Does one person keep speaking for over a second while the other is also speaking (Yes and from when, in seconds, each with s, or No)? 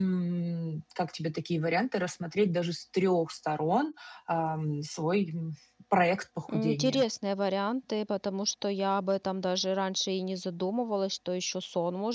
No